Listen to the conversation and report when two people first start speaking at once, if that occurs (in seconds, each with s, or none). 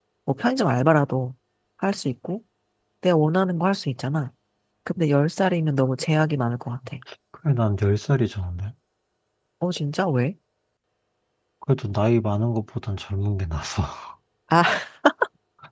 none